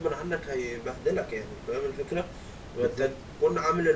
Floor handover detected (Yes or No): No